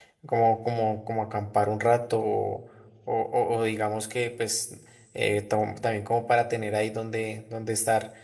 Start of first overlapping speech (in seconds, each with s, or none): none